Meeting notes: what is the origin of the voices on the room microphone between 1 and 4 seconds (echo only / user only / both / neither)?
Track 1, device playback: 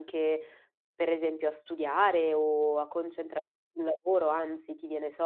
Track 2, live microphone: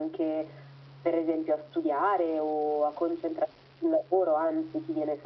echo only